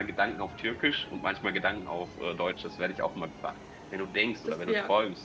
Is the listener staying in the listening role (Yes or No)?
Yes